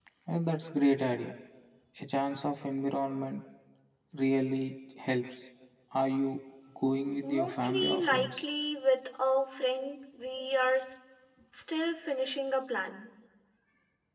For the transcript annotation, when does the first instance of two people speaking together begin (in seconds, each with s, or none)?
7.2 s